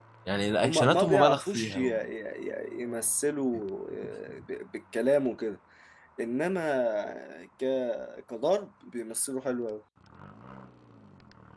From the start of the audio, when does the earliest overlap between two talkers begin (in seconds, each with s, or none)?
0.6 s